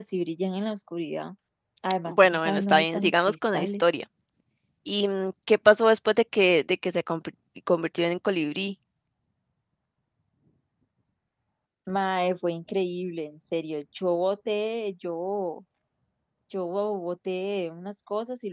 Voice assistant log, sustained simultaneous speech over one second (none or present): present